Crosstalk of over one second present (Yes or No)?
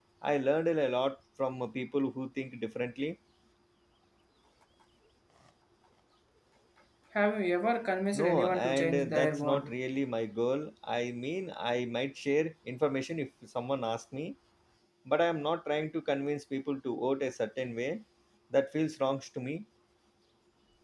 Yes